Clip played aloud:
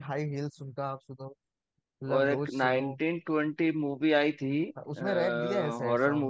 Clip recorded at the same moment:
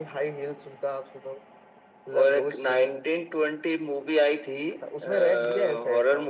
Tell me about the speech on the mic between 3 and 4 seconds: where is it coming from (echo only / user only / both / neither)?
echo only